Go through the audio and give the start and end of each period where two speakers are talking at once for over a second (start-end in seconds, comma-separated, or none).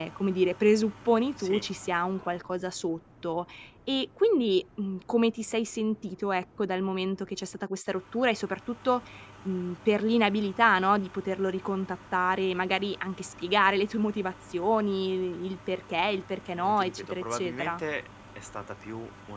16.5-17.8